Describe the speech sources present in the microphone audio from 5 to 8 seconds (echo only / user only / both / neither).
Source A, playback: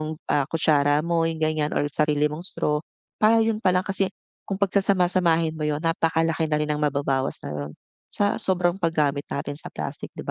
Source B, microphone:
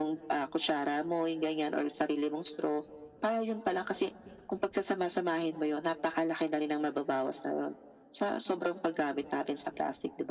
echo only